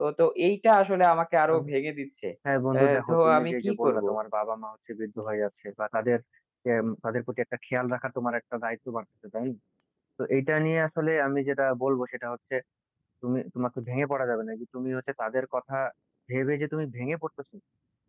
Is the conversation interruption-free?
No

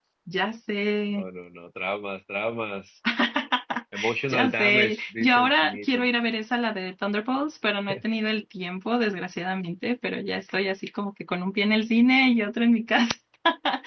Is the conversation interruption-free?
No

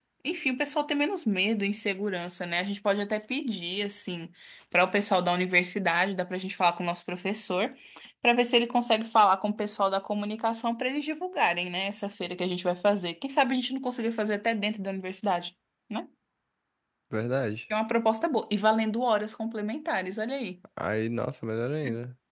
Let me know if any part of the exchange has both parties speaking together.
No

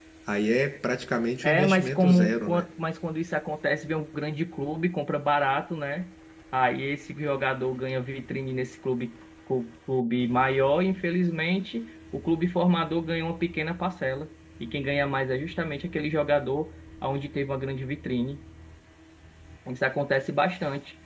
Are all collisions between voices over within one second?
No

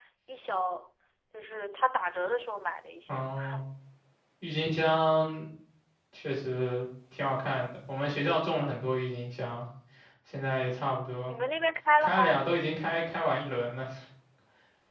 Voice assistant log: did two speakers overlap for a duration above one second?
No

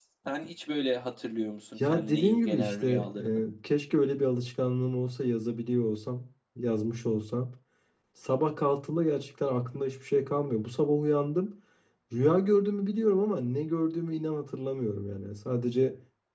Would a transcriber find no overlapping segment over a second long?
No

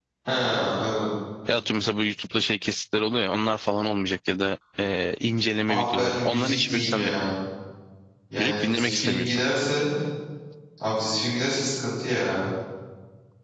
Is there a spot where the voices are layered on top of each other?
Yes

